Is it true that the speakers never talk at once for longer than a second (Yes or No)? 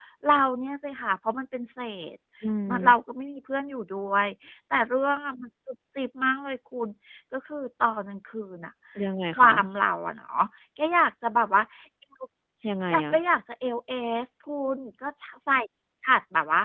Yes